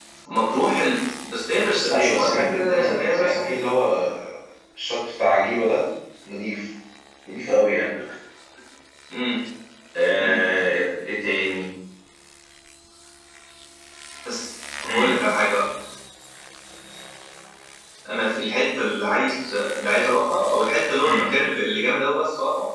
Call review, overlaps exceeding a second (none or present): present